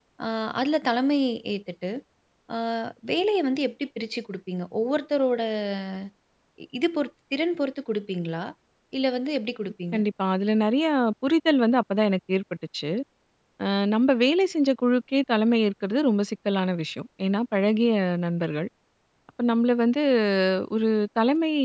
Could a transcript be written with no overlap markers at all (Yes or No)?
Yes